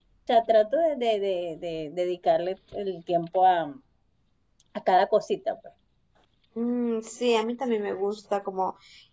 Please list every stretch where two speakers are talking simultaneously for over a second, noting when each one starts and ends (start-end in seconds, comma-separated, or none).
none